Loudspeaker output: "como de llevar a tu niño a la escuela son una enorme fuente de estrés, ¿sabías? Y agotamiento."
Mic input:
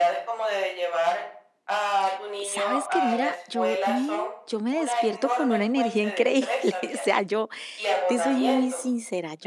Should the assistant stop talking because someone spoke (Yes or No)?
Yes